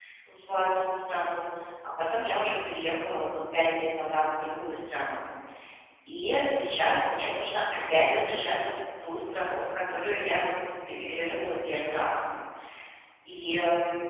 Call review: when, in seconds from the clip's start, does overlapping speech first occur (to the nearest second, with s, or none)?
none